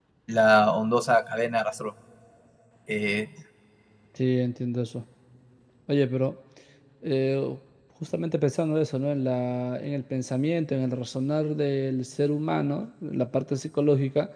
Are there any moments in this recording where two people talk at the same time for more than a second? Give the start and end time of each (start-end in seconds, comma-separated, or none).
none